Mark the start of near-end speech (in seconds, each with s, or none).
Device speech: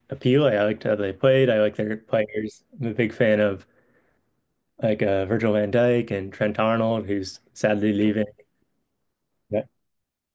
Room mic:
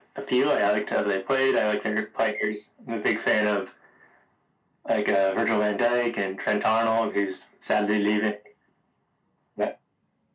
none